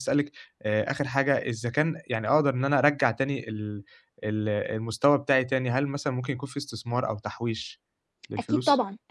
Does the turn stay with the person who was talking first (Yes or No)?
No